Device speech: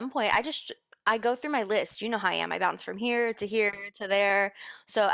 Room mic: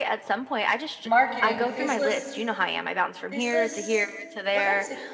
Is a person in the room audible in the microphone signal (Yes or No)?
Yes